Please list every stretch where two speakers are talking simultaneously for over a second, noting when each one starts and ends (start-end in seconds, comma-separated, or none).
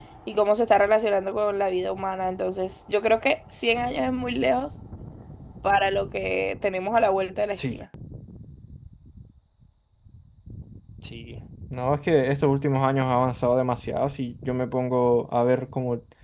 none